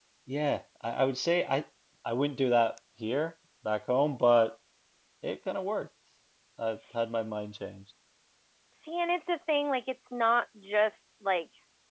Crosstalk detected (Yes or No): No